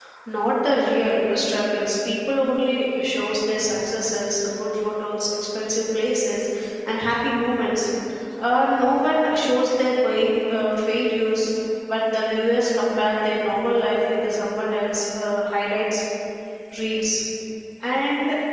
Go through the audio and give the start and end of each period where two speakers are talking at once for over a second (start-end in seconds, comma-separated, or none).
none